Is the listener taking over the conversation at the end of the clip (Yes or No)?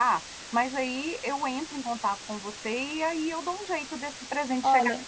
Yes